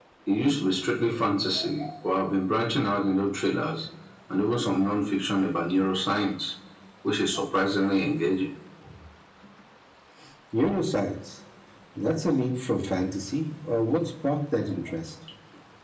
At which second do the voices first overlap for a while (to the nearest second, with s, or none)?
none